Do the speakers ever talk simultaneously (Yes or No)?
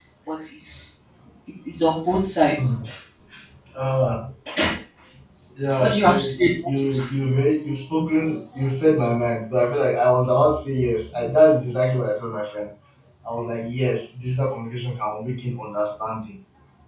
Yes